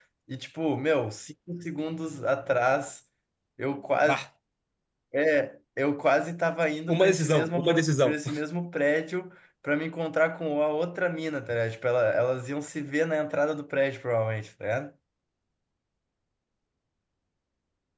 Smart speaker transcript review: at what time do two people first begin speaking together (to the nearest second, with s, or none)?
7 s